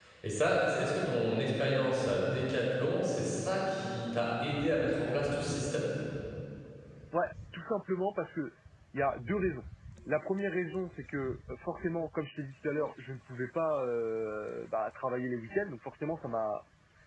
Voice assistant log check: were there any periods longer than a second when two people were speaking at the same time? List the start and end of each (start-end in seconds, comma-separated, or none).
none